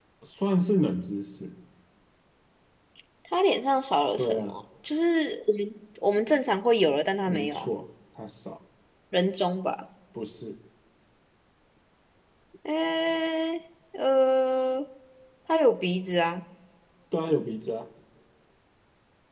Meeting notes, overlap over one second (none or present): none